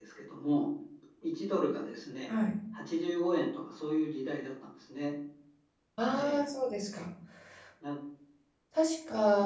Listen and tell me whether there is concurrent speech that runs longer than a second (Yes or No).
No